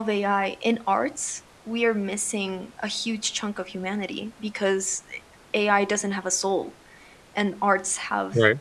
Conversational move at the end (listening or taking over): listening